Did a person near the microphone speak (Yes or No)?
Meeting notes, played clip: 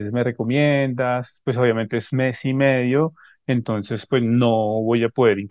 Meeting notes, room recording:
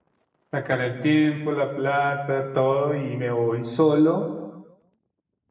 Yes